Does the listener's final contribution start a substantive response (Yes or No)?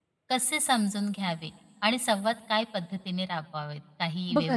Yes